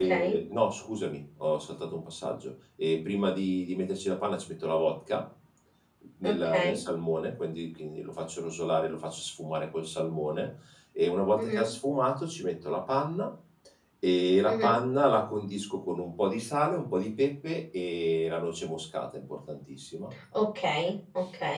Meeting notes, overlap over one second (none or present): none